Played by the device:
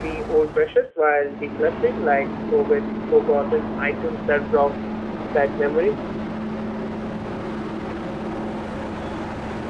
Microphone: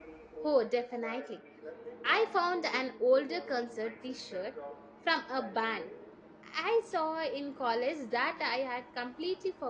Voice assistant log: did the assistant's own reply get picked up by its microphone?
Yes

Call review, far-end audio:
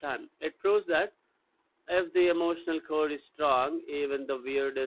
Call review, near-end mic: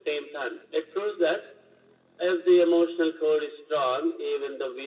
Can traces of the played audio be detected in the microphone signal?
Yes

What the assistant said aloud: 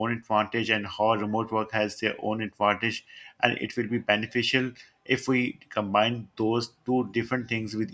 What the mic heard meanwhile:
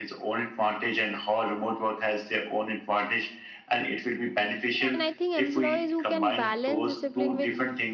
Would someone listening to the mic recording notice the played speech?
Yes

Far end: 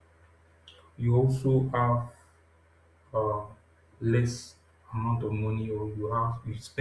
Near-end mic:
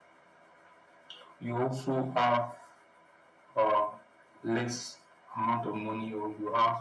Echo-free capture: No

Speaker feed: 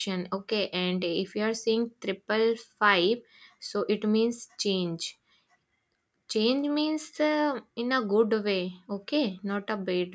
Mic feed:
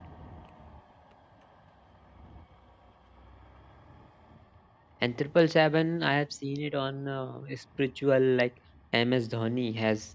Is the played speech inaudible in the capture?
Yes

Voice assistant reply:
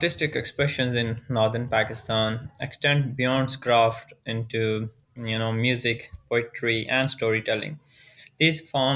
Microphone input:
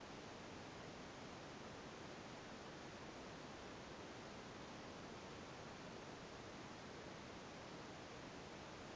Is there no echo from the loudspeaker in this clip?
Yes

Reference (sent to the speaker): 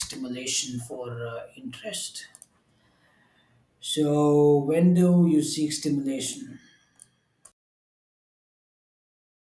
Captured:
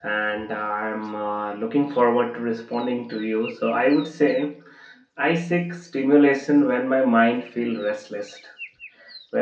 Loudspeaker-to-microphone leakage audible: No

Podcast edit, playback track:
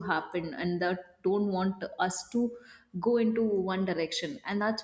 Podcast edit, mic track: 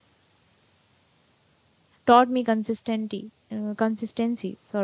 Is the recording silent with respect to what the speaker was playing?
Yes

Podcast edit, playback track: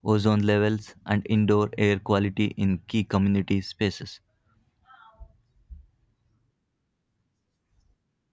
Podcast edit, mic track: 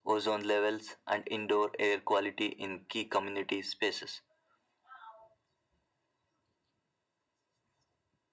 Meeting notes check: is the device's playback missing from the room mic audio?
No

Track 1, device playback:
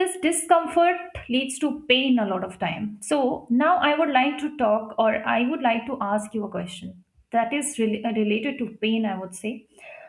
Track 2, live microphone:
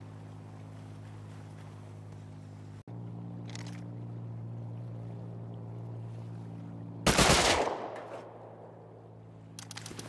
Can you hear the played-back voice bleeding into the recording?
No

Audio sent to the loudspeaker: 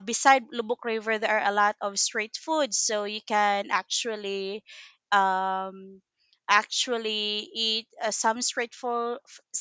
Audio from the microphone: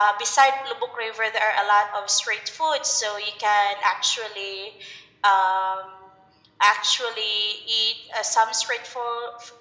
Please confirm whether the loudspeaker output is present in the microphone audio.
Yes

